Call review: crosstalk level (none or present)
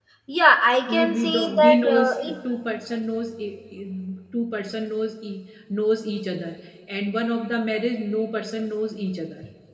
present